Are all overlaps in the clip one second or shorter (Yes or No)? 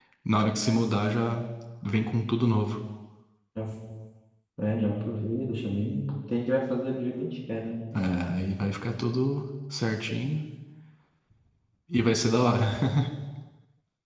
Yes